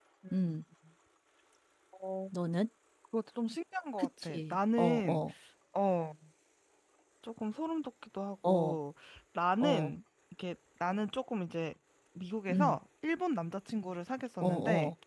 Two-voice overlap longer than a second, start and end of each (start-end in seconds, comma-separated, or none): 4.0-5.2